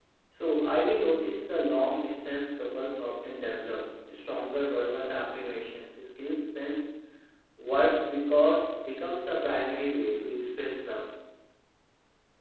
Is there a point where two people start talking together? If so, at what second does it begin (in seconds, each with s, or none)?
none